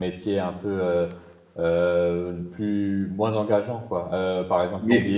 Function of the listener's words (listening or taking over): listening